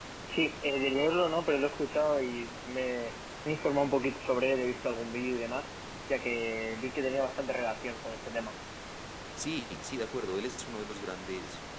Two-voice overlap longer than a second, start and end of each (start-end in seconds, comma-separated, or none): none